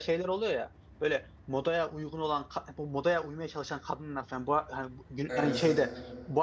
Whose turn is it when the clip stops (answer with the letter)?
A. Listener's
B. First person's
B